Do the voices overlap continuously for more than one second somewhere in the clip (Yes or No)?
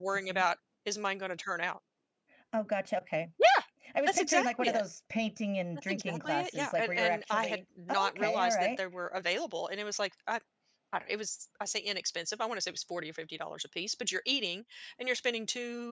Yes